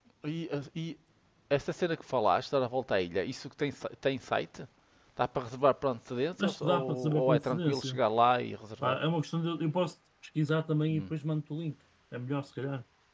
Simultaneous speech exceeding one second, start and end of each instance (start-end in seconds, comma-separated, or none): 6.4-8.0